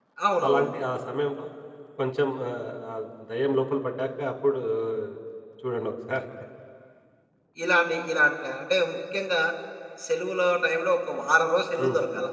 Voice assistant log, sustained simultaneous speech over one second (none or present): none